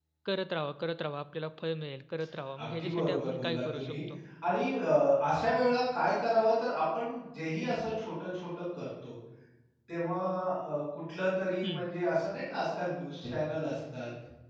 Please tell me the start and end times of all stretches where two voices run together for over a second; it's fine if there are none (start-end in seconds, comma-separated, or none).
2.6-4.0